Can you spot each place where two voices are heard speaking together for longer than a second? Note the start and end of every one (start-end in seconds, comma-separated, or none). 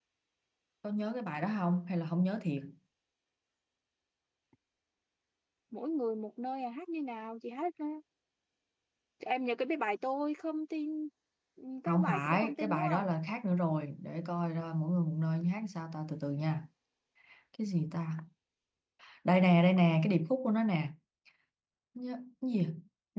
11.9-13.1